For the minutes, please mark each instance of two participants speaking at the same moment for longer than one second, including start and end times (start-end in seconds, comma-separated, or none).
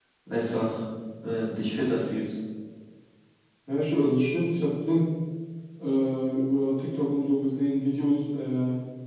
none